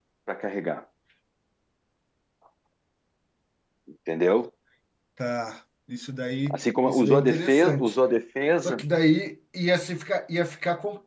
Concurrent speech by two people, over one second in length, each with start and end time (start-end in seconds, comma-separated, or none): 6.5-7.9